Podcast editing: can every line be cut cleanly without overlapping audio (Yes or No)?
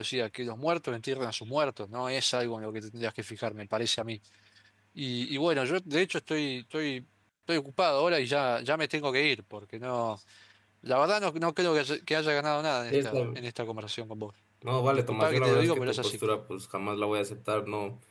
No